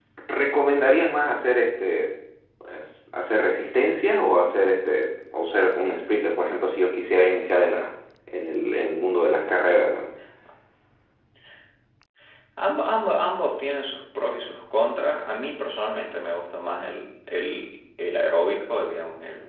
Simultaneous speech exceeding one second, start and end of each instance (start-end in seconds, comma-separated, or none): none